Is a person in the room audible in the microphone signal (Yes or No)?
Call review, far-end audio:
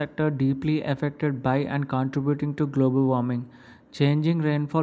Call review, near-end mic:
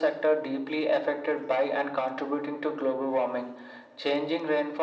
No